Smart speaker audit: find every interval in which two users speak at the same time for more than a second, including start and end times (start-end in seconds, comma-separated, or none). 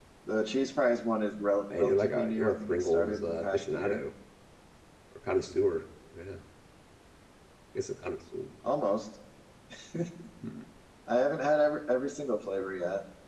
1.8-4.0